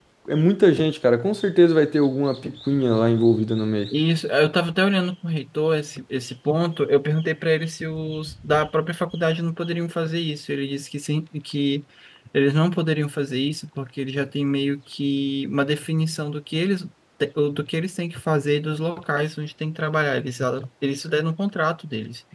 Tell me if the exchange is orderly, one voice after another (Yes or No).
Yes